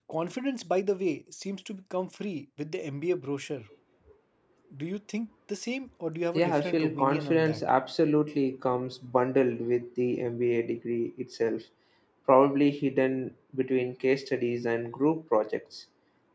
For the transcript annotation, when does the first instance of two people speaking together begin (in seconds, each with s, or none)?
6.3 s